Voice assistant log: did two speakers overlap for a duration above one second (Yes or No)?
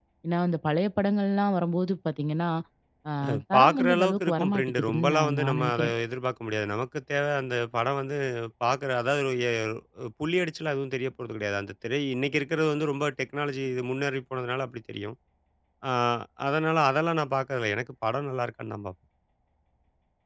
Yes